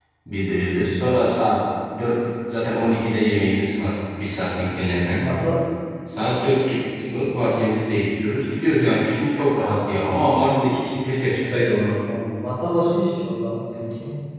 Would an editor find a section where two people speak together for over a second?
No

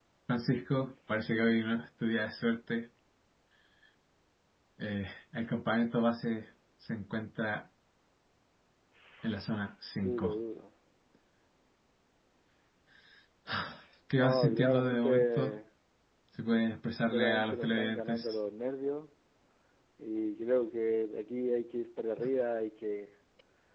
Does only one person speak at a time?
No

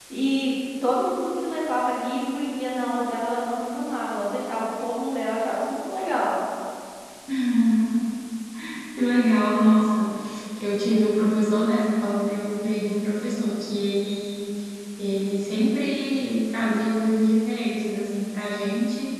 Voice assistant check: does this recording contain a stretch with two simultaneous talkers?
No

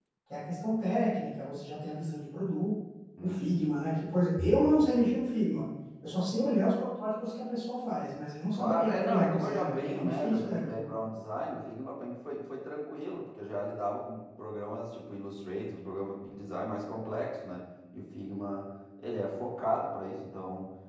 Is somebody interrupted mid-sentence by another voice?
Yes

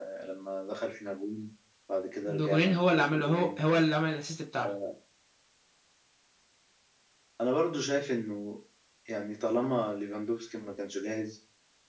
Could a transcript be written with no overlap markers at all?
No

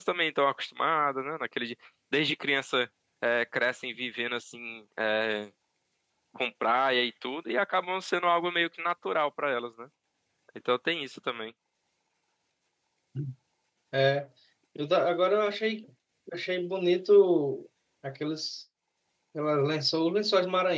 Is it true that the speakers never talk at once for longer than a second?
Yes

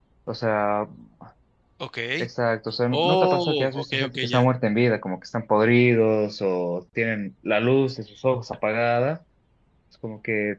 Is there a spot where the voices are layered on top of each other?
Yes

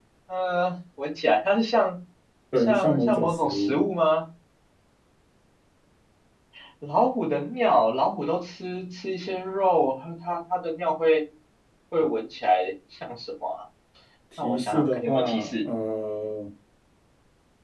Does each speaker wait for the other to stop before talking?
No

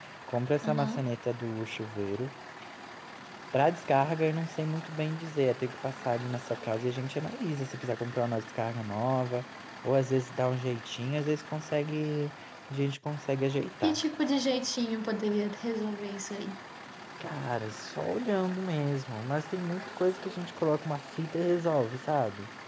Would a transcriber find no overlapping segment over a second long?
Yes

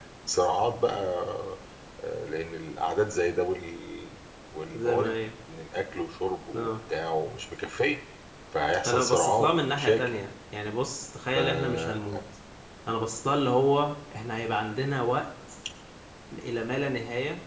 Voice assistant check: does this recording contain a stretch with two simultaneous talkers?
Yes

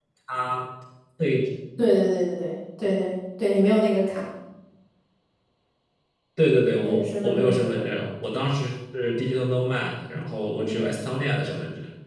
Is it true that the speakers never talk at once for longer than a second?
No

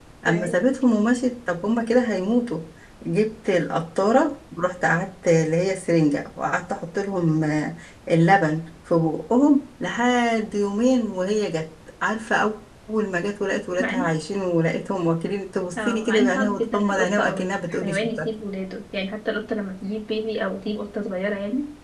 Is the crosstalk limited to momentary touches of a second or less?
No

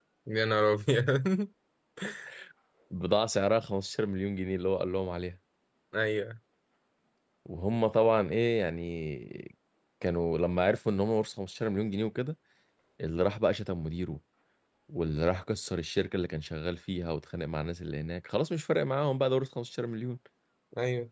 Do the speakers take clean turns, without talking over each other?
Yes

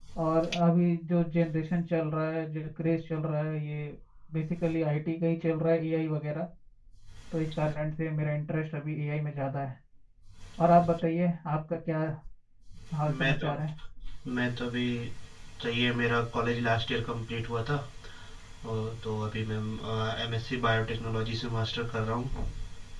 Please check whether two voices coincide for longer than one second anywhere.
No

